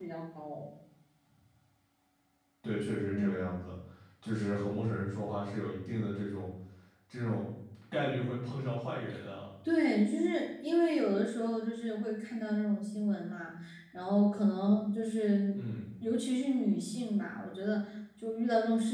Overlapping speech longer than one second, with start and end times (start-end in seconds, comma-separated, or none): none